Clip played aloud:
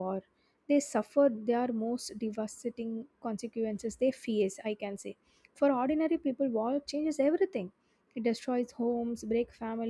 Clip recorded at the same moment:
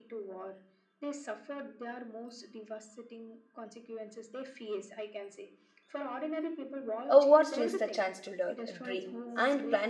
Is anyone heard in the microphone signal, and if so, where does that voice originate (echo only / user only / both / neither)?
both